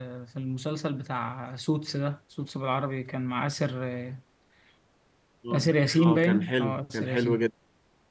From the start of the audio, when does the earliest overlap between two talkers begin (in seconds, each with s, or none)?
5.5 s